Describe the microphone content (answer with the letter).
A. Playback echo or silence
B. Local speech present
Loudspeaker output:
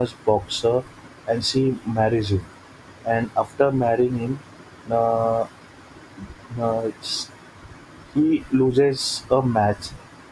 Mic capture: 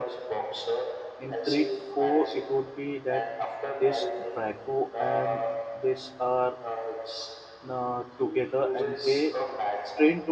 B